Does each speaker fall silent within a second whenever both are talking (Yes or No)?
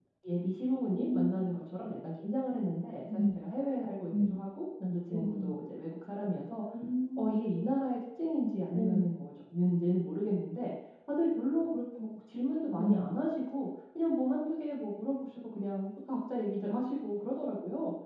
Yes